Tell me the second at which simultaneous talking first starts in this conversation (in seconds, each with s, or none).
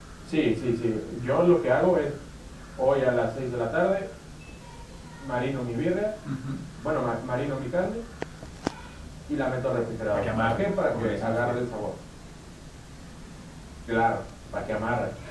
10.1 s